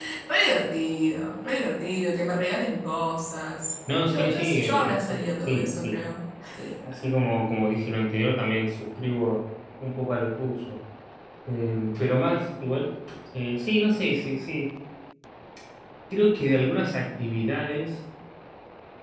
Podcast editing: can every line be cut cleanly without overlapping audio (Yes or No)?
No